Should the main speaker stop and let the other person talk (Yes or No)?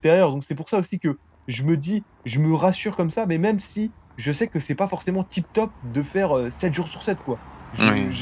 No